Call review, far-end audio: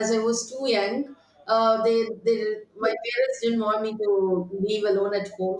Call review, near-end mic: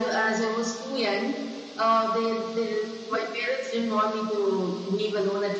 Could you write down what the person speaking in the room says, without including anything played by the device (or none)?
none